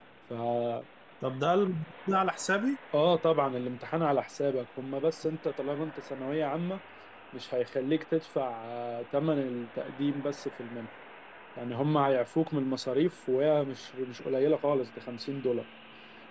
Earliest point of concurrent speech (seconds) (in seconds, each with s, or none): none